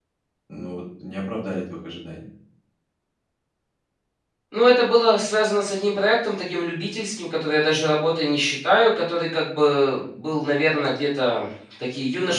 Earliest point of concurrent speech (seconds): none

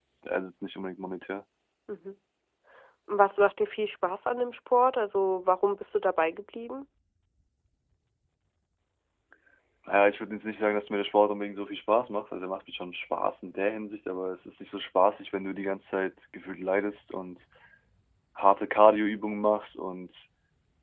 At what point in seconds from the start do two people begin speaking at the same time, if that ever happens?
none

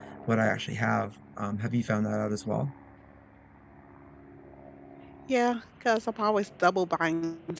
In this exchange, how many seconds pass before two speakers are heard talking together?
none

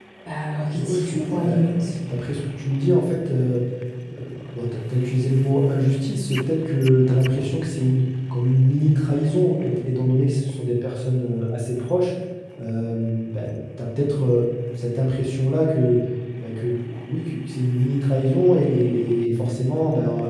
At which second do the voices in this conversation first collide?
0.7 s

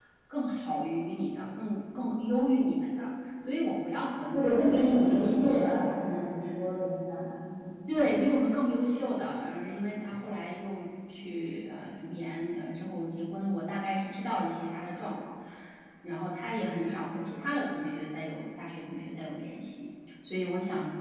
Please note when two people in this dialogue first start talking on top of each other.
4.3 s

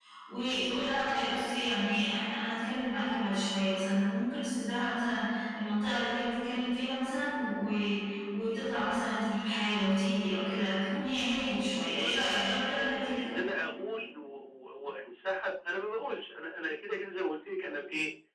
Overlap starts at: 11.7 s

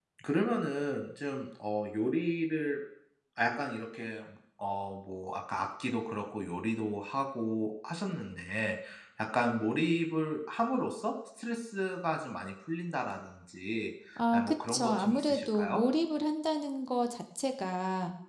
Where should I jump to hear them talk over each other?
14.3 s

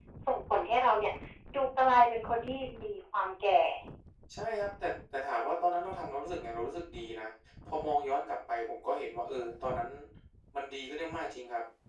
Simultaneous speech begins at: none

